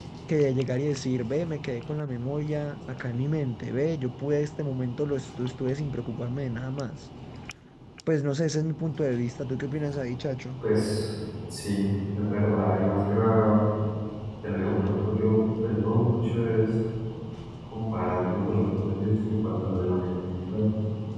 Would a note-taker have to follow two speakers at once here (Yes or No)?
No